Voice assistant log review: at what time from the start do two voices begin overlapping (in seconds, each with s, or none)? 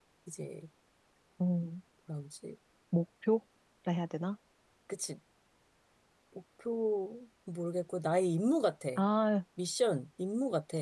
none